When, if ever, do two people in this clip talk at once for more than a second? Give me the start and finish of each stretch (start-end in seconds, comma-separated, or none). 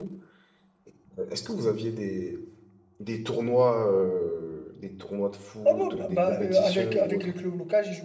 5.7-7.3